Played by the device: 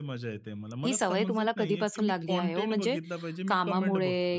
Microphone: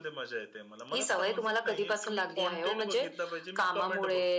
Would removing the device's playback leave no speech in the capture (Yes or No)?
Yes